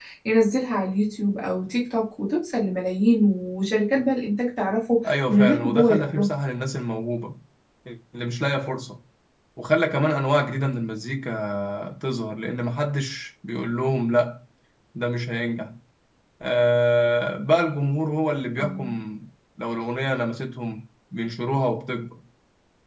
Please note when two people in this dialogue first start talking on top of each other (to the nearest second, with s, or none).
5 s